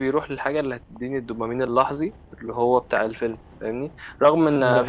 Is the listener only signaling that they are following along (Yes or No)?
Yes